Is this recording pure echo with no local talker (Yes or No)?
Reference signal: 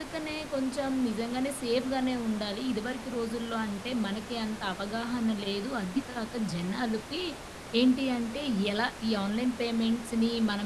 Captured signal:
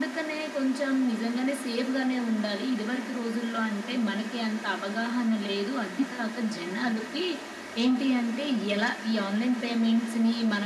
Yes